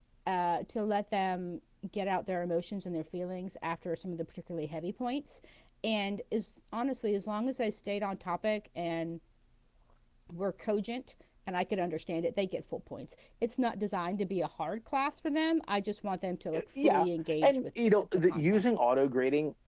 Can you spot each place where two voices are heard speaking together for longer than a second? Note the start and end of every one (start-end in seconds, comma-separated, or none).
17.4-18.6